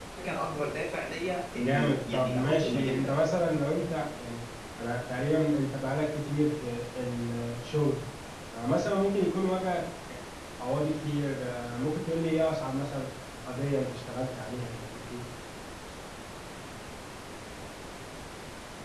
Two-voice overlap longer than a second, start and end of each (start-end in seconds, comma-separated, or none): 1.6-3.1